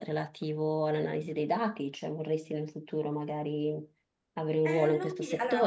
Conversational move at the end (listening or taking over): taking over